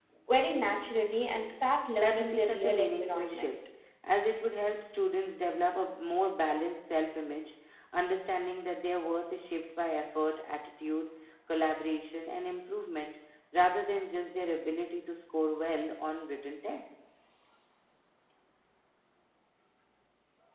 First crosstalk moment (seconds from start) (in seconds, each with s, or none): 2.0 s